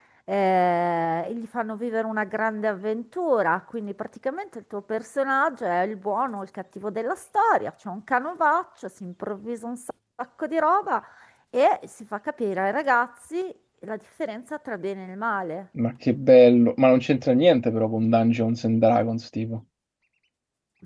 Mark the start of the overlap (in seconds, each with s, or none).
none